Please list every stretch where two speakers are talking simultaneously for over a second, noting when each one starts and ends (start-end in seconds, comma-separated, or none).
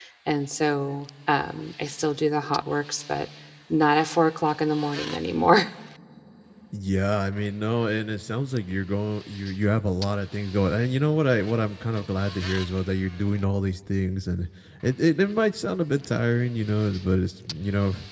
none